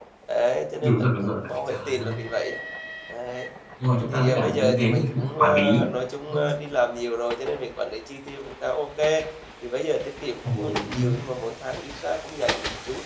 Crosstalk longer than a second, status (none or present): present